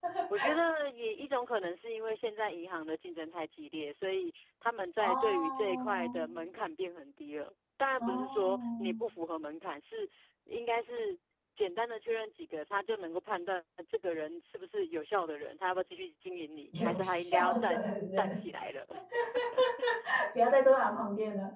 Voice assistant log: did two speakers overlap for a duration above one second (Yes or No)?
Yes